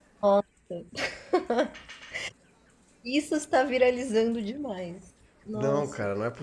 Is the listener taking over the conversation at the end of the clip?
Yes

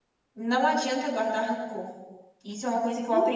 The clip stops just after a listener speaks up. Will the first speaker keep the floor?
No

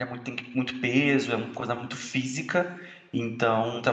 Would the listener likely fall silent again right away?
No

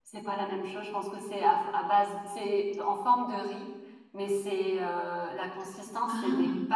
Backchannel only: Yes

